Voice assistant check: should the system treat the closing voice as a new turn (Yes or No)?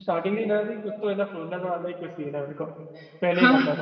Yes